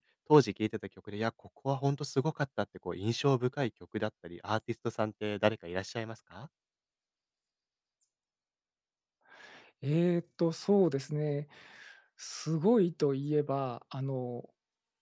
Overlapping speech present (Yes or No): No